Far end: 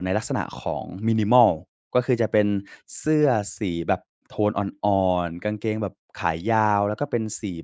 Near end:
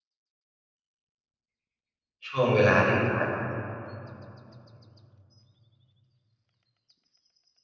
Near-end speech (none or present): present